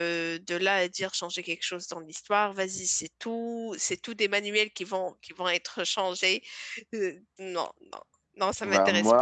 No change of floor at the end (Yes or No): No